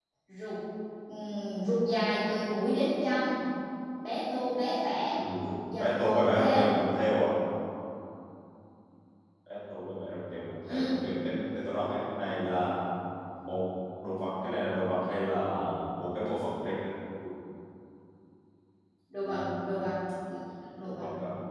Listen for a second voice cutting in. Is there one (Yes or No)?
Yes